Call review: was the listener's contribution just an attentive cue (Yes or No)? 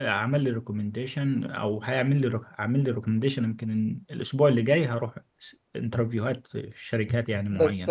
No